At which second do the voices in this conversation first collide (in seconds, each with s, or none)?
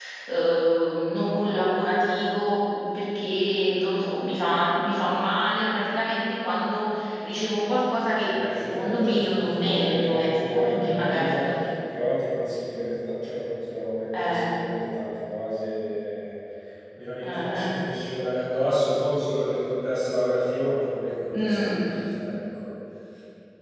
8.2 s